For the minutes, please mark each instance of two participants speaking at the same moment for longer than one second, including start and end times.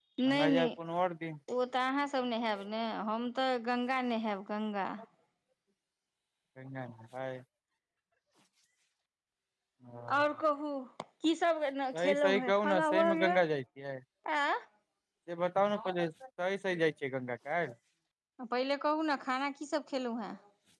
12.0-13.4

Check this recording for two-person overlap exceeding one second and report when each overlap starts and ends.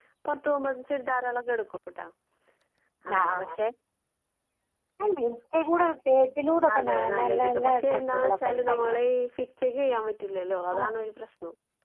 6.8-9.0

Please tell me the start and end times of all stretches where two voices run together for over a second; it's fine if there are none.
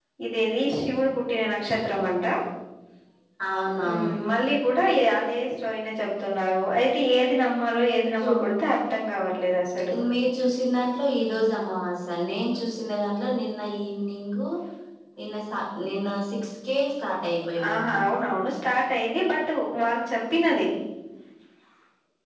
none

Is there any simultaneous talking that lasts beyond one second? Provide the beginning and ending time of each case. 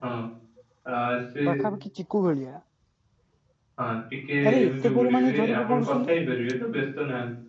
4.5-6.1

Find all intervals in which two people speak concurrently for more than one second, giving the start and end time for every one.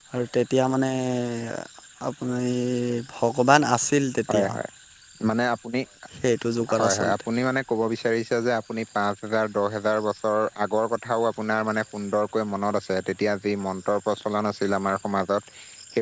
none

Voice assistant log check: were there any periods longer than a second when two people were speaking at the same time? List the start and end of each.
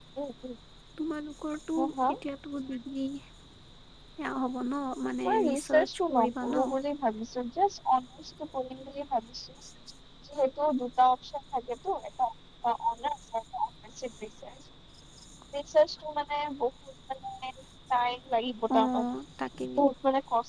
5.2-6.7

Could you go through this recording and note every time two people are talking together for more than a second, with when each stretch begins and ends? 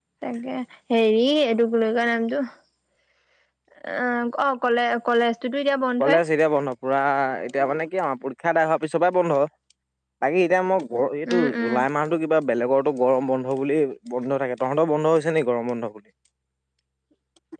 none

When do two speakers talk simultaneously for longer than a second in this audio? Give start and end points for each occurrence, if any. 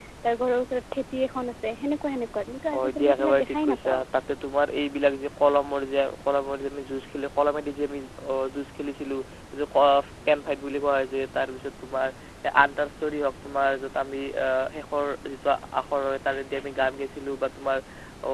2.7-4.0

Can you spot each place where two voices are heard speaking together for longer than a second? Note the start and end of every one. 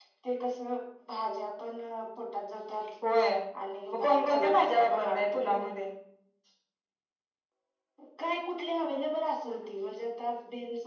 3.9-5.6

